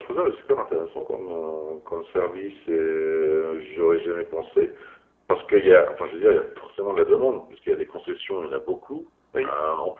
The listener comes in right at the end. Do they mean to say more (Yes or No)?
No